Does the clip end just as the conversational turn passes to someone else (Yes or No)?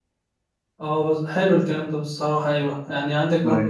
No